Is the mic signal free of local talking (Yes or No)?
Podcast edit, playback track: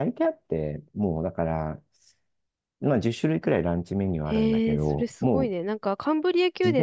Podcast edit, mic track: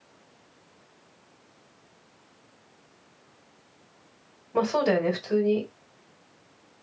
No